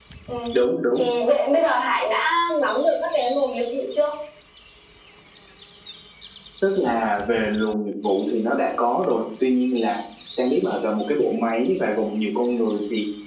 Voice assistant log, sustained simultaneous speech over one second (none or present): none